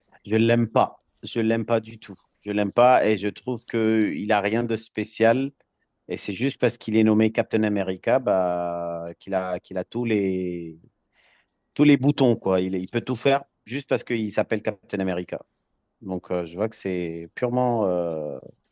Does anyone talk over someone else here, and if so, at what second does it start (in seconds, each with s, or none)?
none